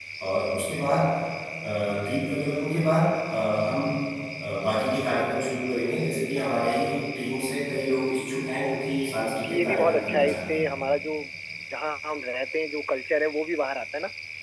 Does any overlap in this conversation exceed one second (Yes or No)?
Yes